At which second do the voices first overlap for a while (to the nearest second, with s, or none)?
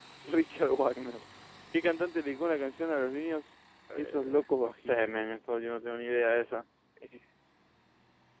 4 s